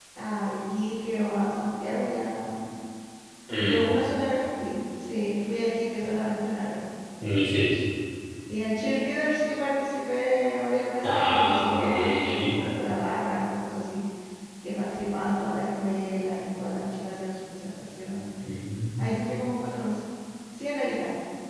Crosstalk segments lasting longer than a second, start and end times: 11.1-12.5

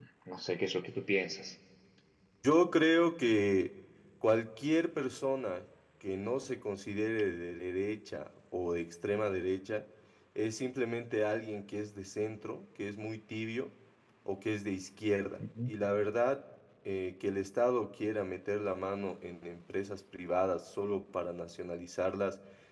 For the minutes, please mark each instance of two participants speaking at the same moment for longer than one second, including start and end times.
none

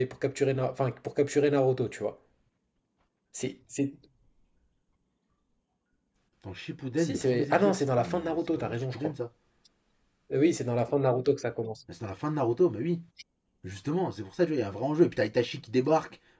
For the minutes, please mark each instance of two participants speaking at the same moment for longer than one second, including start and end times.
7.0-9.1

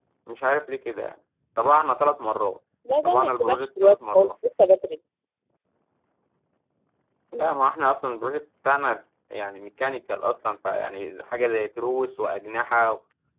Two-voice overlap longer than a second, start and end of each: 3.0-4.3

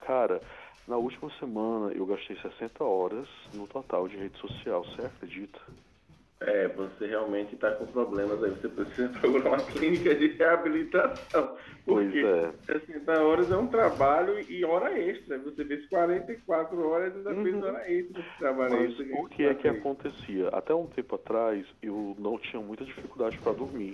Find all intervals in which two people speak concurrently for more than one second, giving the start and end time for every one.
18.6-19.8

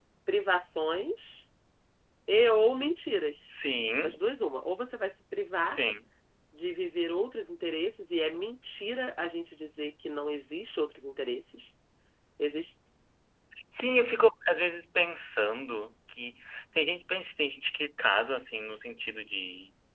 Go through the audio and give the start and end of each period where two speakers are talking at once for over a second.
none

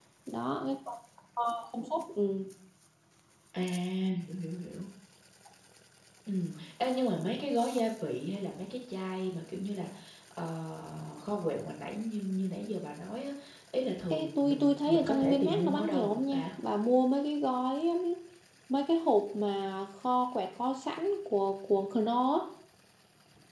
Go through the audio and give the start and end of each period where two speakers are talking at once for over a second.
14.1-16.5

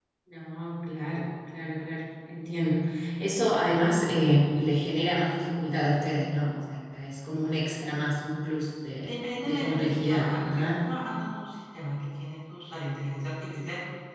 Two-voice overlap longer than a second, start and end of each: 8.9-10.7

